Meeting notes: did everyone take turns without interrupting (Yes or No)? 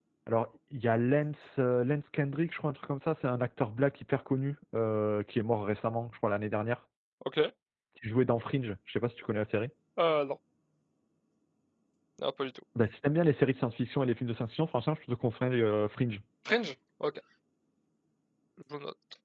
Yes